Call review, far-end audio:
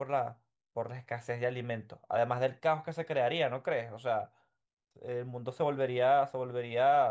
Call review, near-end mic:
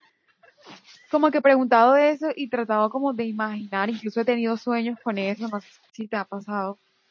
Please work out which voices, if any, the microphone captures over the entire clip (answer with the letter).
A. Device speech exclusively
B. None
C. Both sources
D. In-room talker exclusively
D